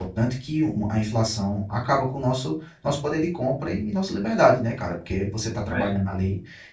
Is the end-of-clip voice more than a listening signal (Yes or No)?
No